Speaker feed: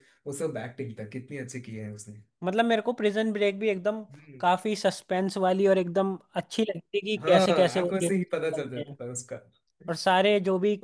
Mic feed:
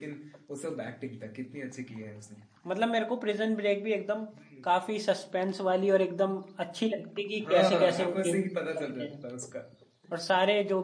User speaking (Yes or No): No